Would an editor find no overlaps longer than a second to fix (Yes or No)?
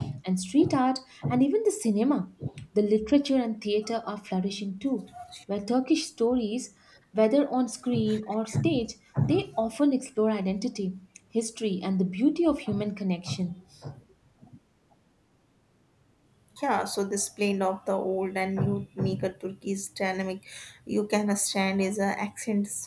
Yes